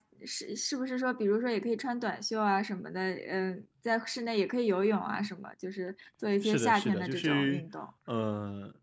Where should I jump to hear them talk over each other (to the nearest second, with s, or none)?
6 s